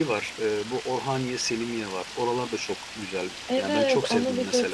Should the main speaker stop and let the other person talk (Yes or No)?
Yes